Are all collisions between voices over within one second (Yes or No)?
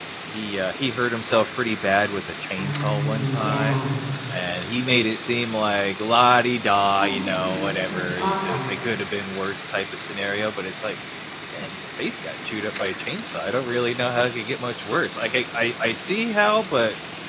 No